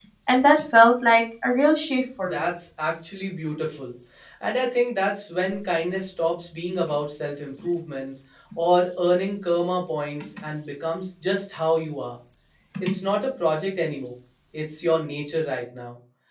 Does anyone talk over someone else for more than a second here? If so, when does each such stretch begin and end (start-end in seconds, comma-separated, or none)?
none